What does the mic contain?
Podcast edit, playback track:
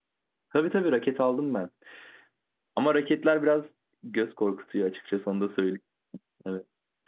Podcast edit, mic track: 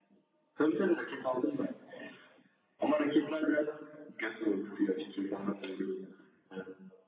echo only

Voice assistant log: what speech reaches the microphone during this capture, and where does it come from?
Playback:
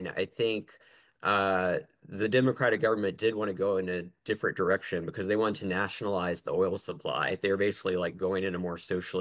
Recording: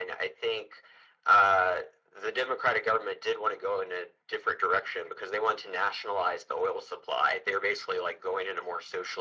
echo only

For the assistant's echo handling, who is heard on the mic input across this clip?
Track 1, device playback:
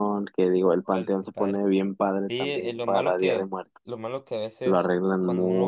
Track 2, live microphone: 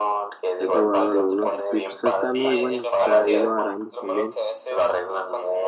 both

